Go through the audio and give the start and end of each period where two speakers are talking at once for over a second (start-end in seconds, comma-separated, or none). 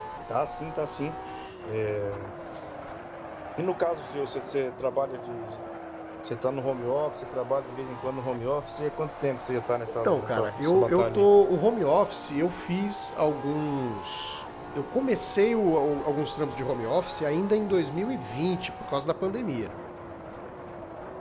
9.9-11.3